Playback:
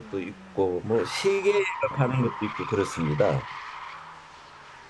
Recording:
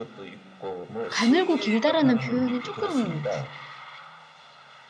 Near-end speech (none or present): present